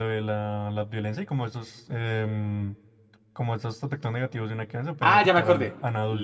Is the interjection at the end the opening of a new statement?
Yes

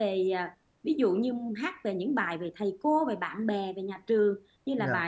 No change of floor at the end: Yes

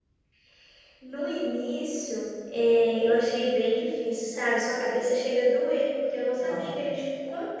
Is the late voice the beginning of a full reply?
No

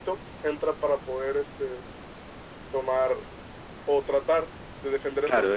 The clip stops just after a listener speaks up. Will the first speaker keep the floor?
No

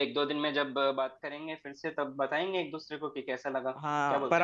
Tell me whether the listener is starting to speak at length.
Yes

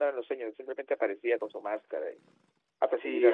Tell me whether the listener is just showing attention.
No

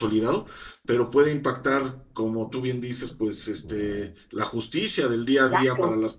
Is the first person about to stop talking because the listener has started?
No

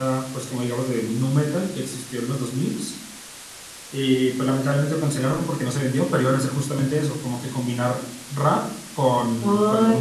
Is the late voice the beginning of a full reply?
Yes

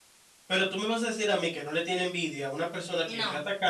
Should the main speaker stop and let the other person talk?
No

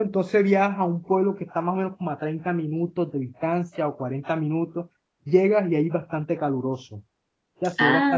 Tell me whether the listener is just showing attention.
Yes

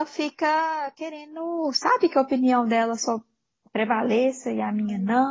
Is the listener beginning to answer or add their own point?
No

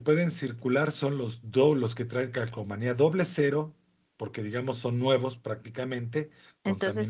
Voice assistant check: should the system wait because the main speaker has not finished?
No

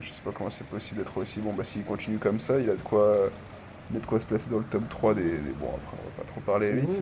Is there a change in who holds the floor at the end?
Yes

